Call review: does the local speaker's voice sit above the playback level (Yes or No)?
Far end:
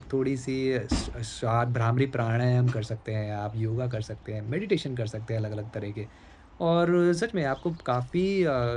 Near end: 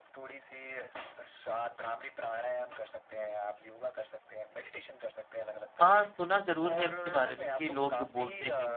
Yes